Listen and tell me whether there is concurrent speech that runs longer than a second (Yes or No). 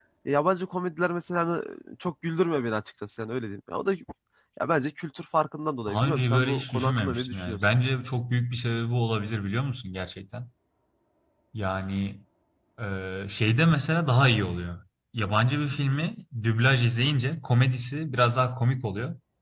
Yes